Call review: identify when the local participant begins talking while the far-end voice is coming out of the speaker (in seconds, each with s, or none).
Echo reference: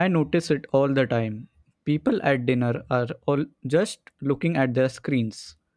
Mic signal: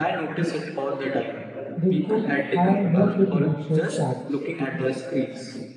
1.7 s